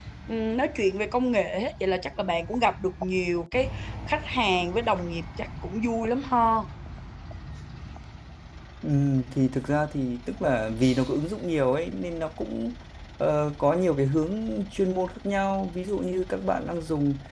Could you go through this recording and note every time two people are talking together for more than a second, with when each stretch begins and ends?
none

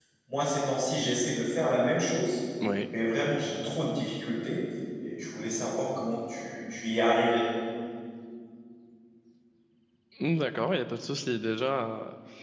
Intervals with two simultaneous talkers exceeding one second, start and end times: none

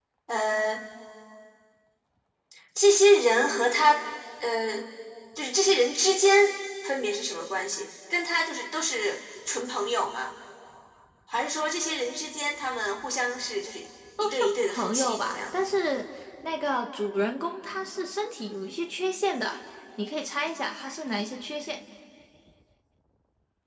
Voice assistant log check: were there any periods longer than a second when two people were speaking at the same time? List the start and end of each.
14.2-15.4

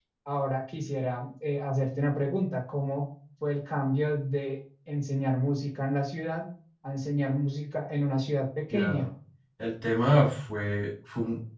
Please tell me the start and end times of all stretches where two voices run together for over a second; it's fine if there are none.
none

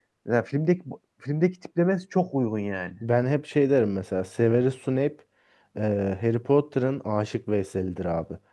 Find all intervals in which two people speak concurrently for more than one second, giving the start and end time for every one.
none

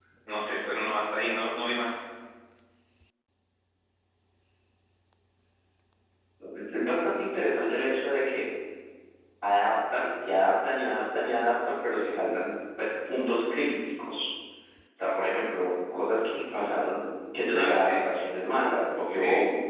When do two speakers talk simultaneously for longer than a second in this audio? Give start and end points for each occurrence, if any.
none

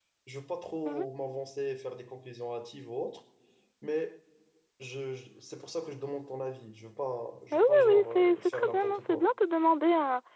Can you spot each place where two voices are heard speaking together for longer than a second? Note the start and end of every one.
7.5-9.2

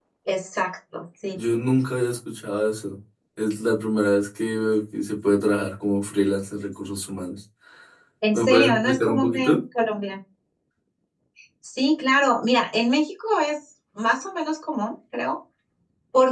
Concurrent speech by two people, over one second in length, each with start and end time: 8.3-9.6

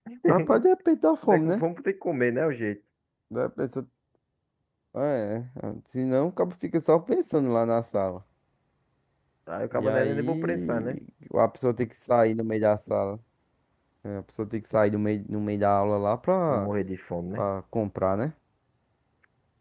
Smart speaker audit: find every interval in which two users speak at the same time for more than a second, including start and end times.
9.7-11.0

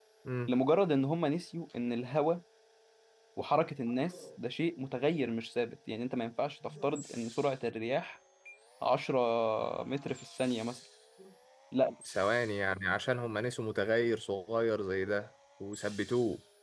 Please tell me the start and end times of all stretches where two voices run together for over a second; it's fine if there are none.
none

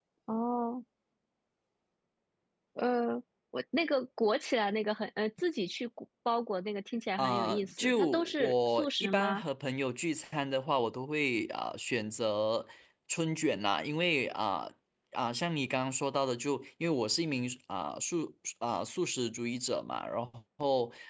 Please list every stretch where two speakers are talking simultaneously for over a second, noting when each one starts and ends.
7.2-9.4

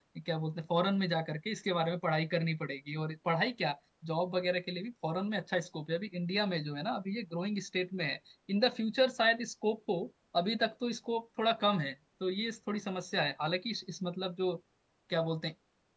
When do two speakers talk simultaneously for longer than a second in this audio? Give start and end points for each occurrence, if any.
none

